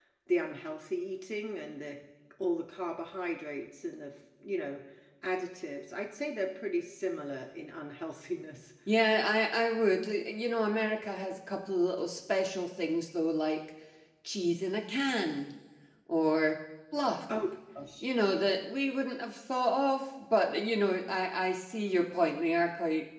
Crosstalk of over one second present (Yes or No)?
No